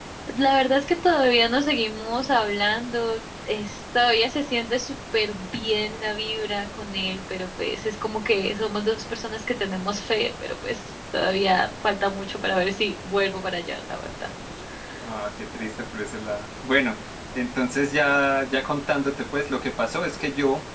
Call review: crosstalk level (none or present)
none